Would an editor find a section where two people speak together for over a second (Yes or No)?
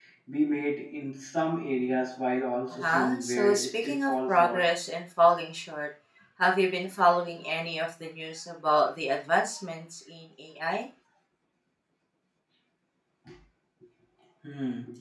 Yes